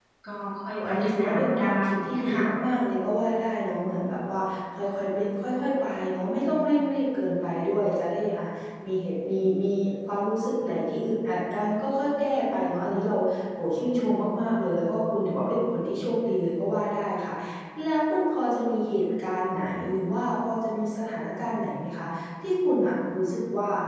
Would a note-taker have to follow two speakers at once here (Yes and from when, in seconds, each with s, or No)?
Yes, from 0.8 s